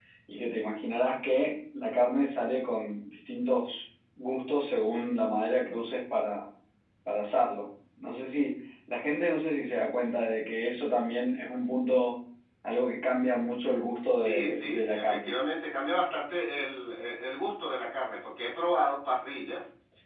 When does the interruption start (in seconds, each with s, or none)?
14.1 s